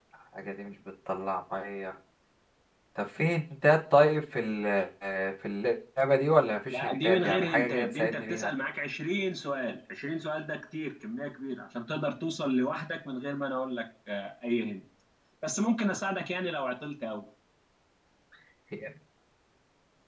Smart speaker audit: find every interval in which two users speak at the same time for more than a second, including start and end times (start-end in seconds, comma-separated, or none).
6.7-8.5